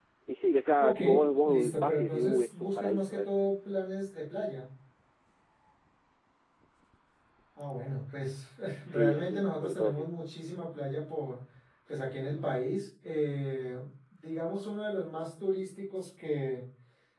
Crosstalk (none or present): present